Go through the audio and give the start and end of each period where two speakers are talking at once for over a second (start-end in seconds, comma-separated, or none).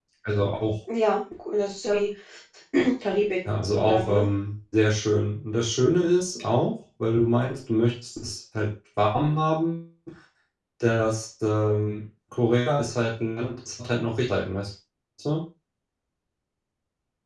none